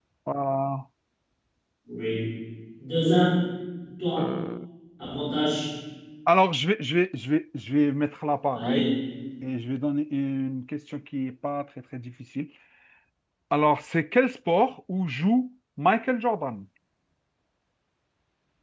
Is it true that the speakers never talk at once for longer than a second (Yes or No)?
Yes